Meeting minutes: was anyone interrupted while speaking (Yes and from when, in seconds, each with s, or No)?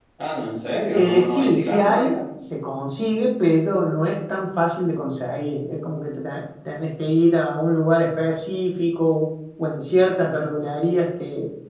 Yes, from 0.9 s